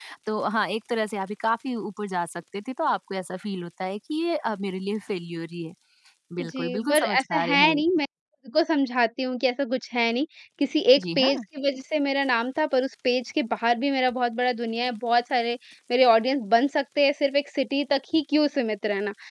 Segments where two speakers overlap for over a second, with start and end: 6.4-7.8

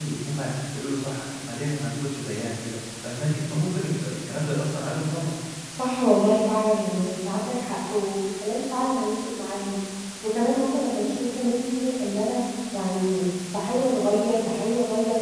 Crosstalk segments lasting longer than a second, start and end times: none

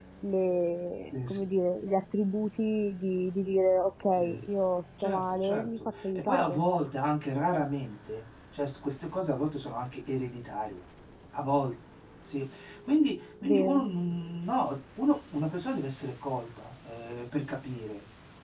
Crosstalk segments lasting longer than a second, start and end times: 5.0-6.6

